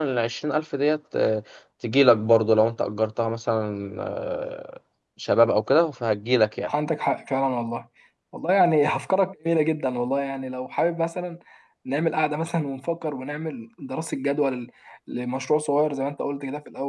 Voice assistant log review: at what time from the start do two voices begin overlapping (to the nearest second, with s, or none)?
none